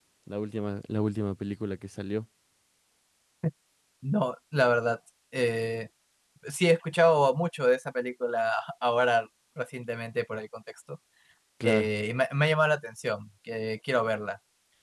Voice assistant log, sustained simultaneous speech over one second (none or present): none